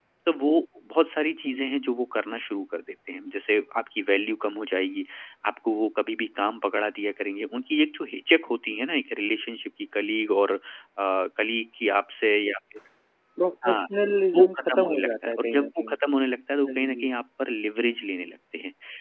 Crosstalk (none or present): present